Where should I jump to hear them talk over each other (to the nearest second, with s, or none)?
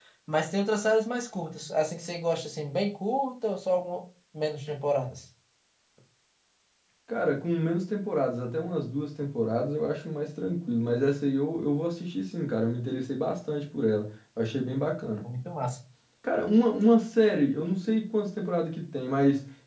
none